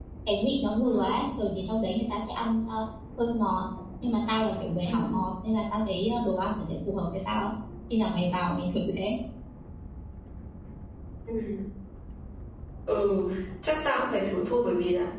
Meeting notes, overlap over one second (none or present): none